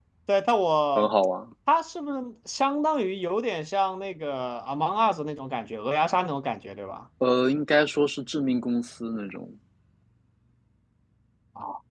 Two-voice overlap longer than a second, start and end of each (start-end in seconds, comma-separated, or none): none